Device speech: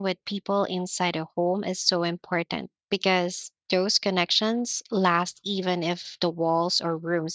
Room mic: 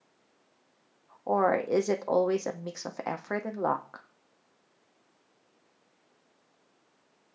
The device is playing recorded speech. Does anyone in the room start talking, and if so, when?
1 s

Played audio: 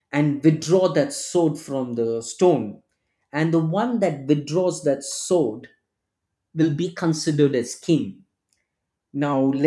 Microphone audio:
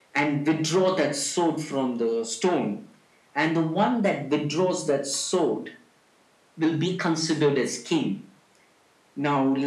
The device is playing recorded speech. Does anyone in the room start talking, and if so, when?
none

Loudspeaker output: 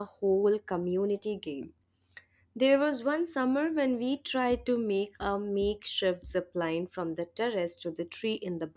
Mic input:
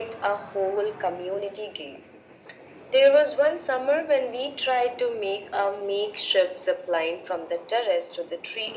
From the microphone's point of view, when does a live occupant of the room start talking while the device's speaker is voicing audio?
none

